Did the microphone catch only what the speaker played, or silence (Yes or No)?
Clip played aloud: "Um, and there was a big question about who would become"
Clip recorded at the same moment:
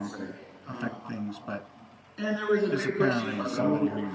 No